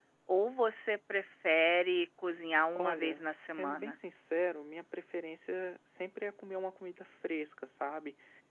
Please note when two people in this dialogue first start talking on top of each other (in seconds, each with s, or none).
2.8 s